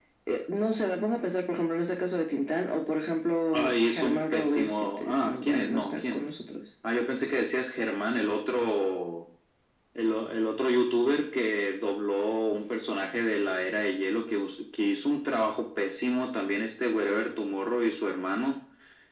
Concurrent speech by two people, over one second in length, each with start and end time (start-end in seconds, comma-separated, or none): 3.5-6.2